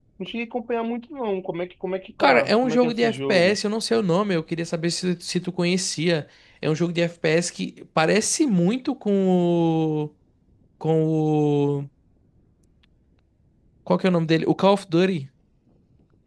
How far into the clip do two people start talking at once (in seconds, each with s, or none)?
2.2 s